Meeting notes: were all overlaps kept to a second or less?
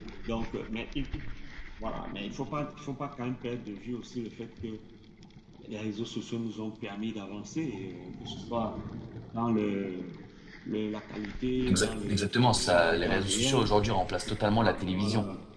No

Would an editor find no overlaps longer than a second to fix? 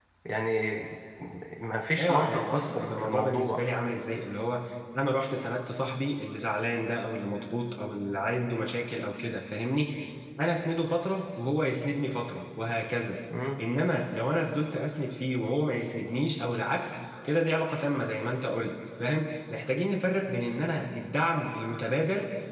No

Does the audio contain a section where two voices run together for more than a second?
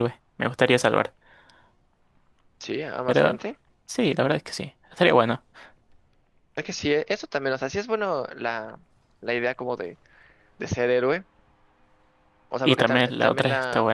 Yes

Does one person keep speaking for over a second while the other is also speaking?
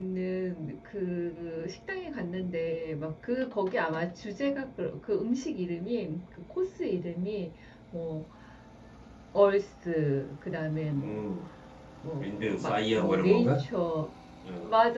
Yes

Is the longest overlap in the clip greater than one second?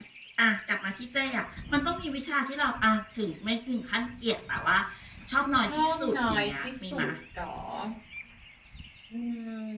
Yes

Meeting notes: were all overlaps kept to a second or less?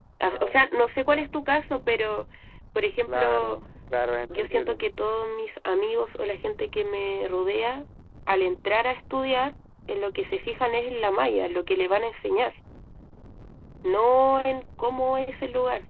Yes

